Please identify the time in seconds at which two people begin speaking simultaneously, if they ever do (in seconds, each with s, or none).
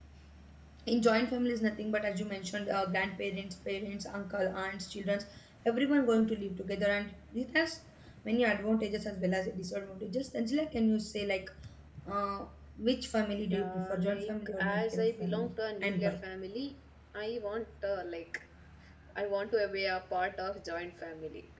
13.5 s